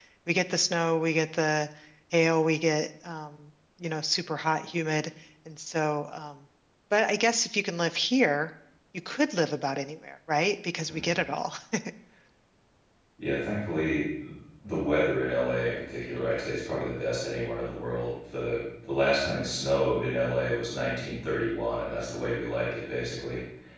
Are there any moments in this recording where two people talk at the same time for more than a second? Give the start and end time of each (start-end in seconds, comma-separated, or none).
none